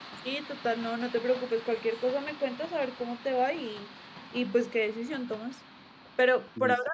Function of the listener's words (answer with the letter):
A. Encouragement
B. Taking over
A